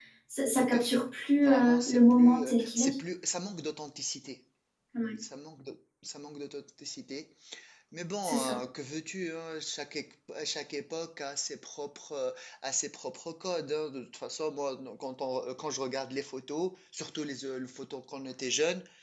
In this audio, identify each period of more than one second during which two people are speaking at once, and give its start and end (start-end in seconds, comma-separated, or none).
1.5-2.9